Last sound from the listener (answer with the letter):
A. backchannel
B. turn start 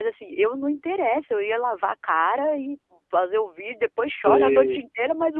A